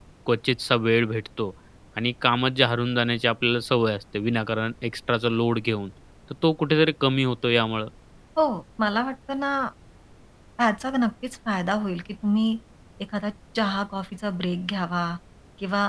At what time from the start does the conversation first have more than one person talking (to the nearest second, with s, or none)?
none